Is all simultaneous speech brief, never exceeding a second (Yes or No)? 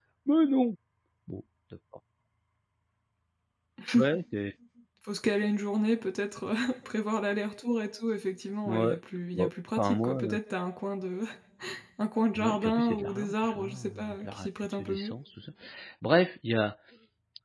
No